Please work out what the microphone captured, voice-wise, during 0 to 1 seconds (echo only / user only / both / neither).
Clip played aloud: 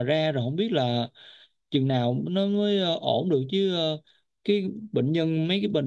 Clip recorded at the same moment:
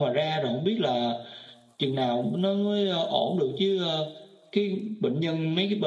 echo only